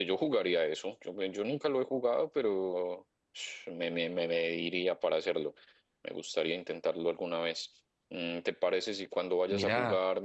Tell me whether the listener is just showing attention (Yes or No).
Yes